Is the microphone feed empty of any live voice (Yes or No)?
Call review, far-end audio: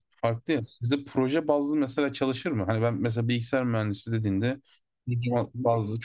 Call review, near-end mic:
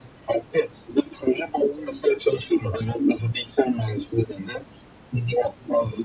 Yes